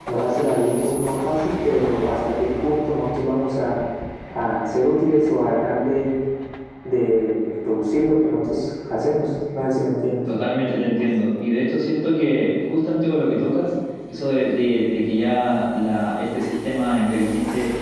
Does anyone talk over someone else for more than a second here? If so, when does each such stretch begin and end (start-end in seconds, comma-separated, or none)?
none